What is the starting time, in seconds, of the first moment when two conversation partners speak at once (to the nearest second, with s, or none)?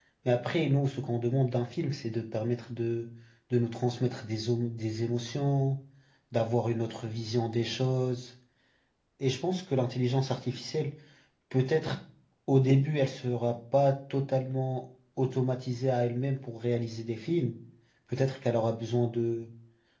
none